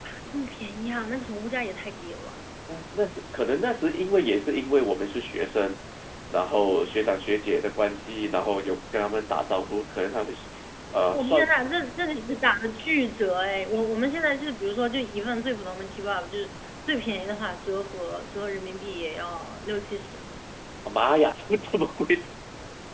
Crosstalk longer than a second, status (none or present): none